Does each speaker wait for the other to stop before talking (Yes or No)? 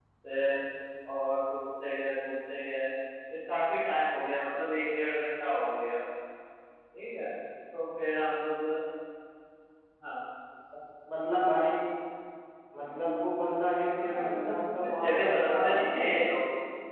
No